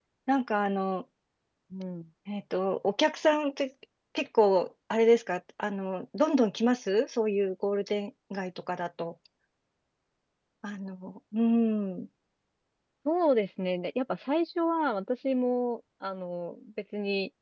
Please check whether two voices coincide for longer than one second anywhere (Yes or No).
No